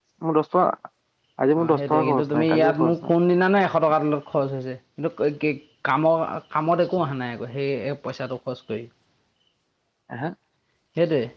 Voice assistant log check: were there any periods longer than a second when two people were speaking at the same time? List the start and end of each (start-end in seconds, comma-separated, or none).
1.6-3.1